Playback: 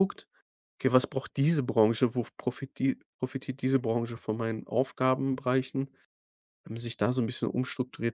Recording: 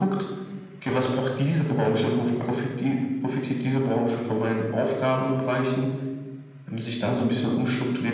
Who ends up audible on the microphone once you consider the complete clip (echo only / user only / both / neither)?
echo only